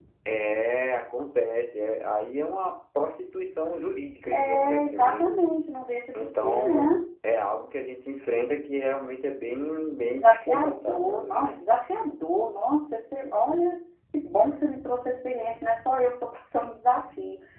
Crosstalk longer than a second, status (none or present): present